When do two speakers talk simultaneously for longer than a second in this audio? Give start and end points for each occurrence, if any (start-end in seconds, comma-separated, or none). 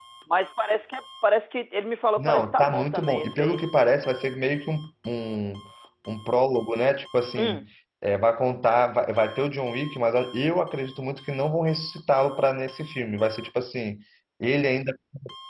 2.2-3.6